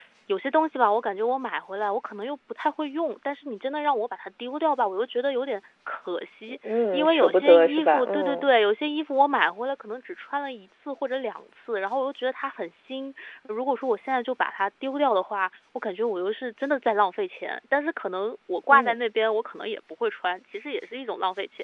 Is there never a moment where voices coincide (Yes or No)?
No